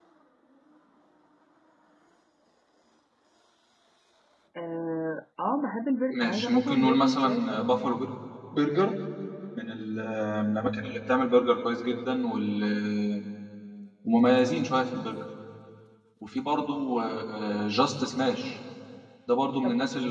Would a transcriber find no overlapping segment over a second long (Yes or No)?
No